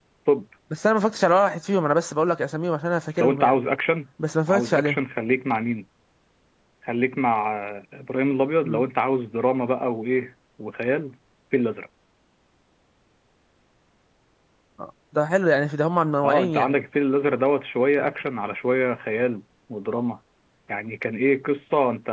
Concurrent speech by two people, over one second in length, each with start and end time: none

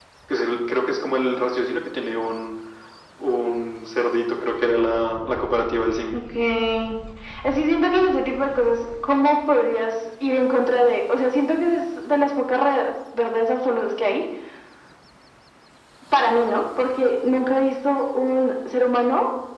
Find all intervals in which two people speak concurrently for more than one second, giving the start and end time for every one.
none

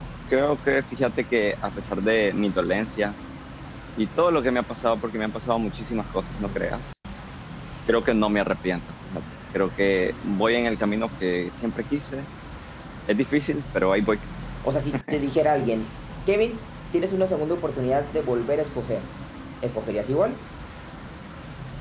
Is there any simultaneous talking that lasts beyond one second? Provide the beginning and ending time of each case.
none

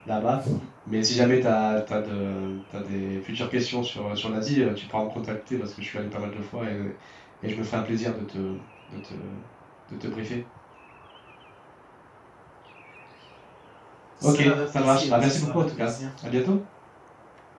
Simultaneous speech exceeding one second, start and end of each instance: 14.2-15.9

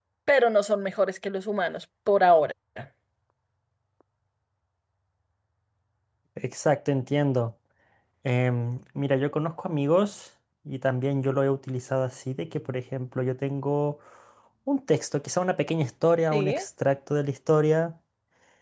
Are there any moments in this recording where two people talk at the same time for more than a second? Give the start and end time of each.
none

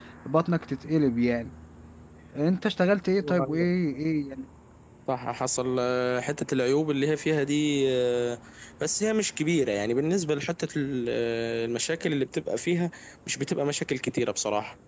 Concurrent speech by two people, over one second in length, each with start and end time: none

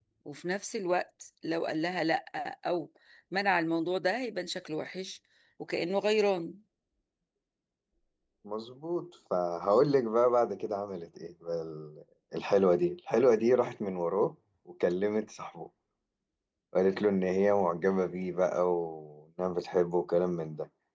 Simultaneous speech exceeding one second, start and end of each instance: none

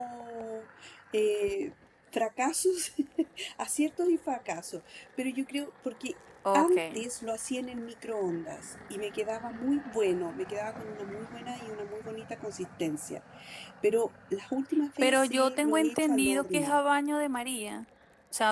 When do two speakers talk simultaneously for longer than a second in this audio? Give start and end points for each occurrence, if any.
15.0-16.8

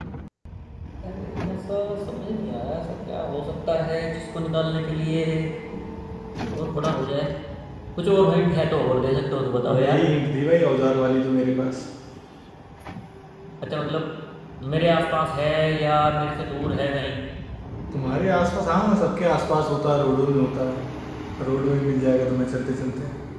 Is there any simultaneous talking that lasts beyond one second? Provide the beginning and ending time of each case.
none

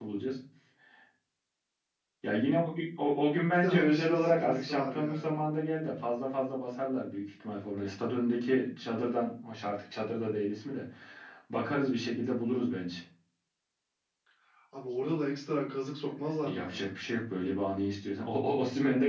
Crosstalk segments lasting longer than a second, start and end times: 3.5-5.3

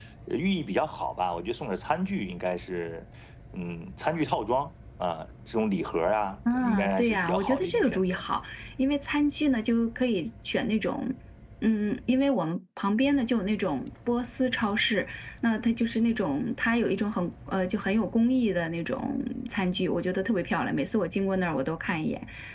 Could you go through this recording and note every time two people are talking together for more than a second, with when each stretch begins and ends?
6.5-8.2

